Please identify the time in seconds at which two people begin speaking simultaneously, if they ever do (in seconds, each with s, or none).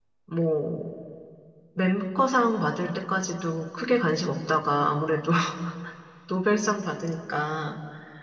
none